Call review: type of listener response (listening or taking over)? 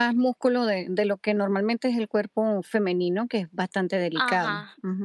taking over